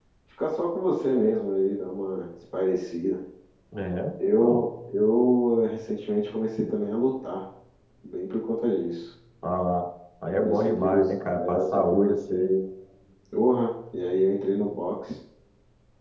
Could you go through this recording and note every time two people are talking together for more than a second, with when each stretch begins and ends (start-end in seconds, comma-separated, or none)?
10.3-12.5